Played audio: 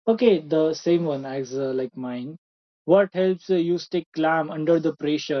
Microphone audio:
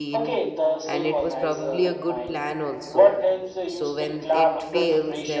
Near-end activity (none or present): present